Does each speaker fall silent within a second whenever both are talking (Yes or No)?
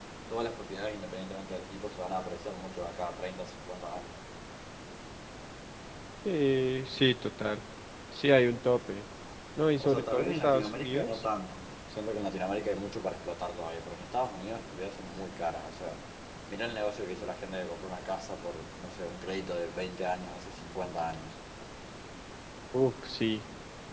No